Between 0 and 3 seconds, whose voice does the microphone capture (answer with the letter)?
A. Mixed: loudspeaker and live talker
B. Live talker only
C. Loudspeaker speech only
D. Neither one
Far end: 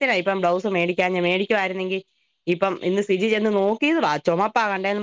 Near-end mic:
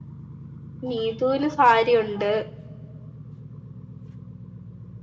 B